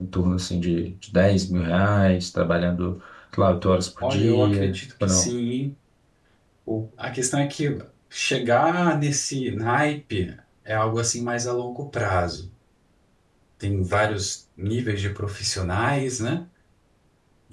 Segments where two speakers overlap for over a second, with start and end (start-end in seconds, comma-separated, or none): 4.0-5.3